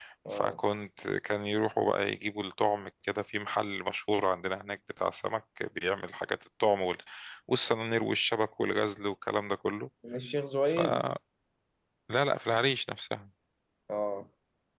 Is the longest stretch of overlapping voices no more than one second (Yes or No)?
Yes